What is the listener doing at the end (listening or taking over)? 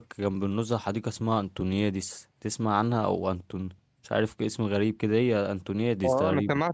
taking over